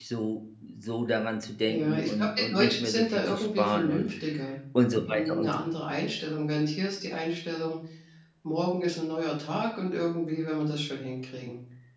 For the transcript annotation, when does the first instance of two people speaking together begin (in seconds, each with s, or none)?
1.7 s